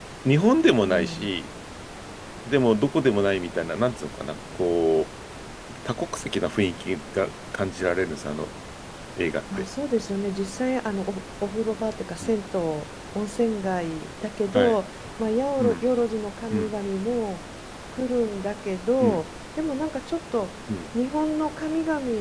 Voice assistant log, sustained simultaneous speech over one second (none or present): none